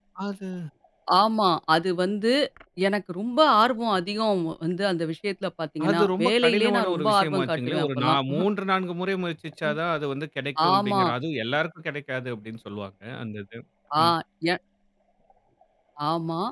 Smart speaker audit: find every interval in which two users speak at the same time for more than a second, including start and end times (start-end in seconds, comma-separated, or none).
5.9-8.2